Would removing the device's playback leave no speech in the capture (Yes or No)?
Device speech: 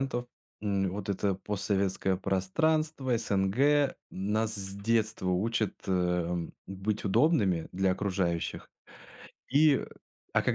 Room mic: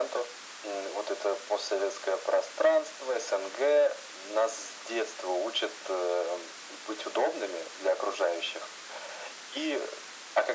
Yes